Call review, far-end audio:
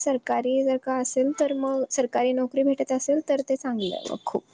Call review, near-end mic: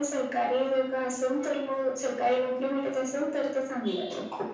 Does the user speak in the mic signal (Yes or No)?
No